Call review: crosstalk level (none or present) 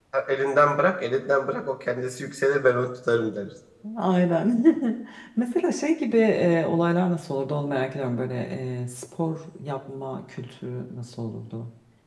none